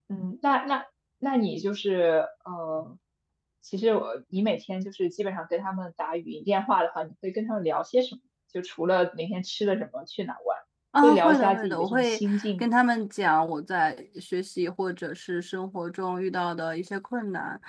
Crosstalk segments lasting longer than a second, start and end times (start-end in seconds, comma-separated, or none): 11.0-12.7